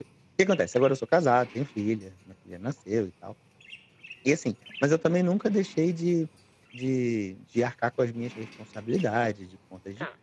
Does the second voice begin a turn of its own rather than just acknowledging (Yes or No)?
No